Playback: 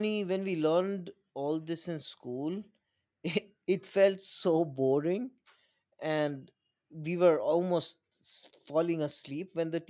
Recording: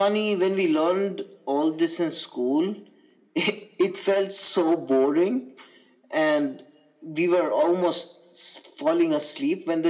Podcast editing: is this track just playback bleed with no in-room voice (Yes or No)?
Yes